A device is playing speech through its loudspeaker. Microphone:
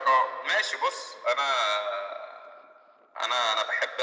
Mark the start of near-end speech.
none

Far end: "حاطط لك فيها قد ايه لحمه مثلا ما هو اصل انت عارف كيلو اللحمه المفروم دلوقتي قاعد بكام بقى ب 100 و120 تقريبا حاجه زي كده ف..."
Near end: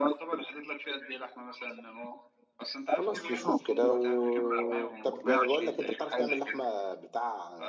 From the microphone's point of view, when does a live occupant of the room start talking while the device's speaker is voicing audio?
3.0 s

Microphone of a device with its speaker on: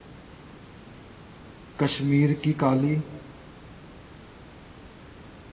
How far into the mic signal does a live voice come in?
1.8 s

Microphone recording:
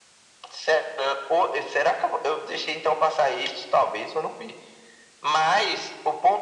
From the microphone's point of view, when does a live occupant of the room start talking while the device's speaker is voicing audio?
none

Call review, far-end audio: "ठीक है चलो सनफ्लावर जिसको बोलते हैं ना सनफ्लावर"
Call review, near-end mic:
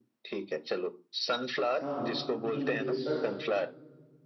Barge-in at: 1.8 s

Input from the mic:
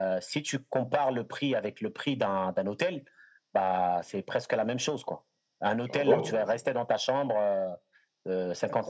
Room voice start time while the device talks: 5.9 s

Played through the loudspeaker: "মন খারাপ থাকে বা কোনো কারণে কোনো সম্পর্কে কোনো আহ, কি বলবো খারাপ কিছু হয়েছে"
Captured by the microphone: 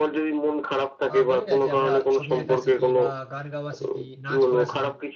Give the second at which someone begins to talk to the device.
1.1 s

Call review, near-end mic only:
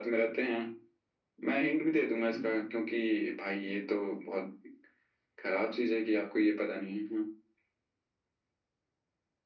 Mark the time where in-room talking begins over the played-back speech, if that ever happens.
none

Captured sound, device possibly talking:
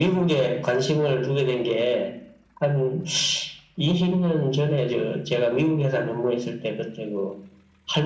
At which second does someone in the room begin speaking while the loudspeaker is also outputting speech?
none

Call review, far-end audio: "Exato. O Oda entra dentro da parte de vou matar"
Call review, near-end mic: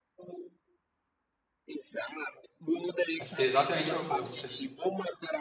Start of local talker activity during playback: 3.2 s

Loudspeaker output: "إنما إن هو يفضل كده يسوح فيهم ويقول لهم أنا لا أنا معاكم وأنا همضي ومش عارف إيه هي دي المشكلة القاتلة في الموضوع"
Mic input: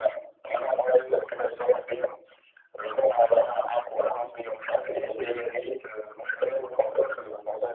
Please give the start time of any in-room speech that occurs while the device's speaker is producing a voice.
none

